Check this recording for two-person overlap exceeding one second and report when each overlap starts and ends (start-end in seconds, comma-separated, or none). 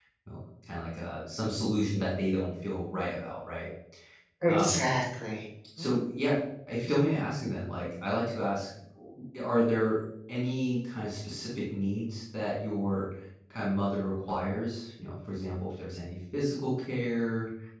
none